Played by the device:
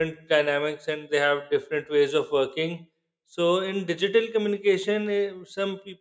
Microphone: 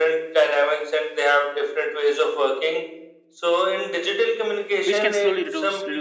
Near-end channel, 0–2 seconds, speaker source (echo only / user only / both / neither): echo only